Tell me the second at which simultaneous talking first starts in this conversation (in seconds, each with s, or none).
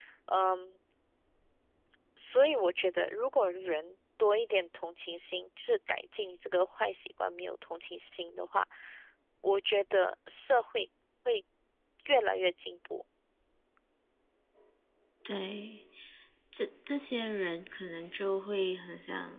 none